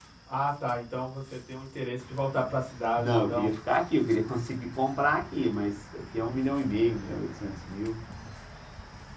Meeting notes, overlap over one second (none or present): none